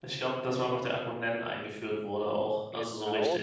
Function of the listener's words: taking over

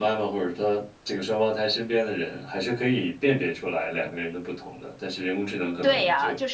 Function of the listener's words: taking over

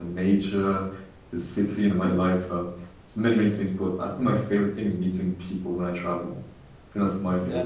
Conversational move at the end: listening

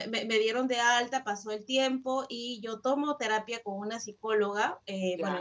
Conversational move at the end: listening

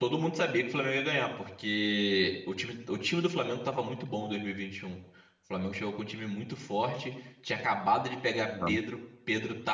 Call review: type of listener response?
listening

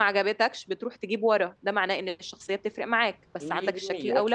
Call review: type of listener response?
taking over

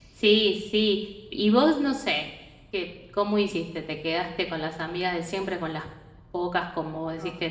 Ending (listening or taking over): listening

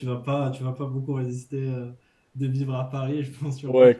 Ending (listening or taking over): taking over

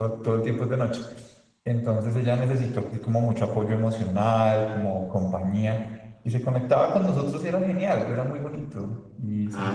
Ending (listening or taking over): taking over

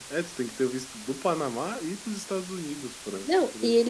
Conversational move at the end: taking over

